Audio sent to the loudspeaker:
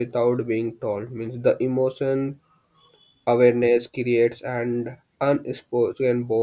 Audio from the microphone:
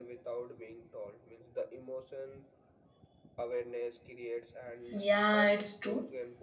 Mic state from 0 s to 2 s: echo only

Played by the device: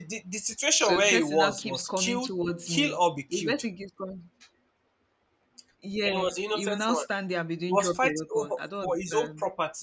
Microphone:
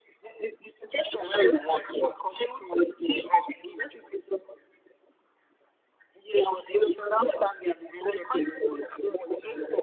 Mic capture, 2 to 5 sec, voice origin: echo only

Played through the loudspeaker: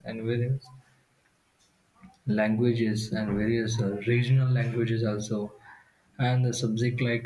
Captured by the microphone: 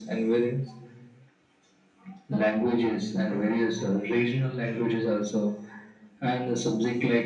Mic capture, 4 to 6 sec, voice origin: echo only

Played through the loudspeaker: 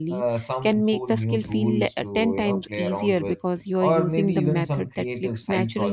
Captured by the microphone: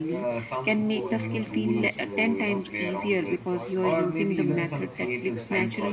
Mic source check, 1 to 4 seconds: both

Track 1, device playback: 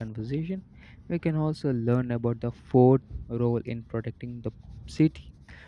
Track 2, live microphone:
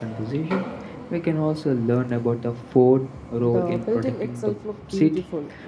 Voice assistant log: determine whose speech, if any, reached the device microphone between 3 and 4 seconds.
both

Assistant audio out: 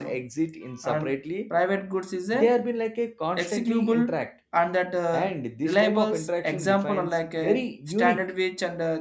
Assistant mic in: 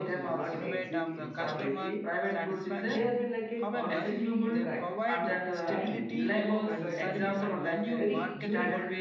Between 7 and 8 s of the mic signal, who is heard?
both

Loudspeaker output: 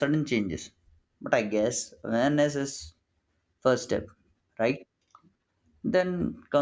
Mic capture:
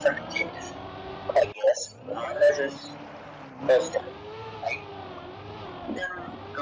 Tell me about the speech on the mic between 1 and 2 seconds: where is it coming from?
echo only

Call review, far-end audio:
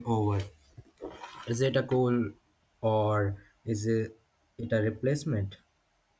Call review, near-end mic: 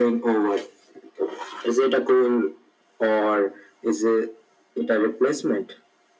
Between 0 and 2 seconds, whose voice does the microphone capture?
echo only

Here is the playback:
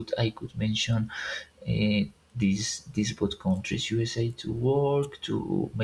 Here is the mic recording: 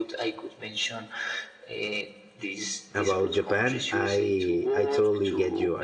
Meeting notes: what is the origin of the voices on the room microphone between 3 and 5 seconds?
both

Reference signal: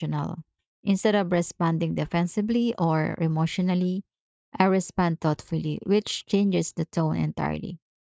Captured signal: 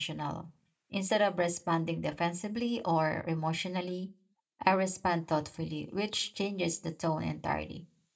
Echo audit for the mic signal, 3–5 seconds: echo only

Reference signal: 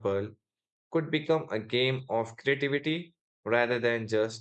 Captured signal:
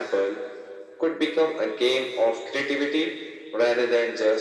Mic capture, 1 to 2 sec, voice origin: echo only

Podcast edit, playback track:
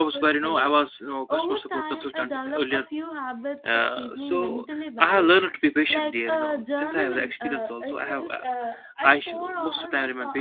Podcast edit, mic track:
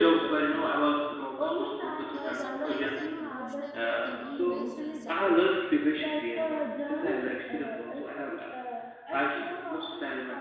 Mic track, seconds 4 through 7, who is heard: both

